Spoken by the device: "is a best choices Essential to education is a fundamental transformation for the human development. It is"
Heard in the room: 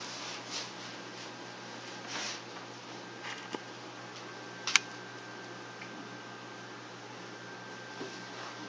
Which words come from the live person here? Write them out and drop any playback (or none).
none